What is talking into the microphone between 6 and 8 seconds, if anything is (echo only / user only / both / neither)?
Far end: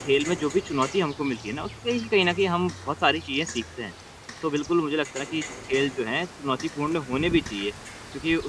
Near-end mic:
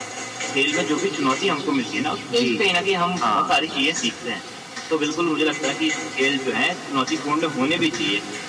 echo only